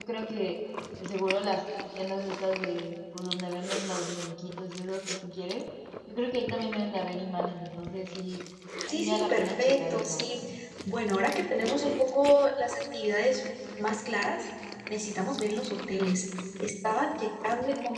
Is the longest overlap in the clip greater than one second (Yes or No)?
Yes